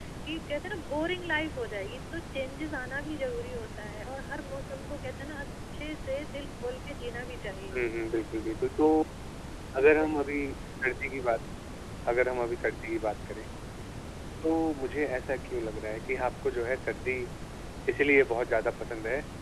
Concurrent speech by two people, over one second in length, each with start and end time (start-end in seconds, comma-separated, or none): none